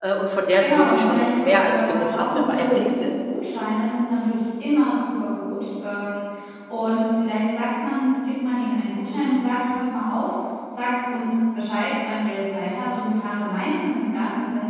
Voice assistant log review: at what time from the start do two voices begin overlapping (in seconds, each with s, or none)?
0.6 s